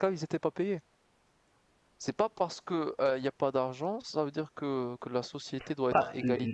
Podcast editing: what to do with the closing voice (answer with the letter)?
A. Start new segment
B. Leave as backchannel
A